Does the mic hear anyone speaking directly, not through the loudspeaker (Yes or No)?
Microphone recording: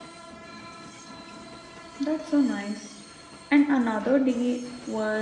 Yes